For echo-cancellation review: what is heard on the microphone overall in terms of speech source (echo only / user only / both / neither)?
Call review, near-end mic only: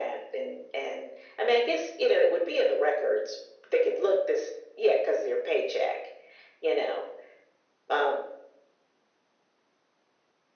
echo only